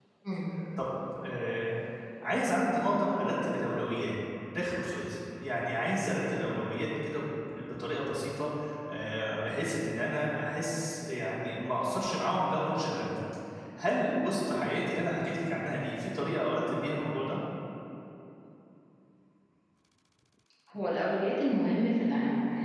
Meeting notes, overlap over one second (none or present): none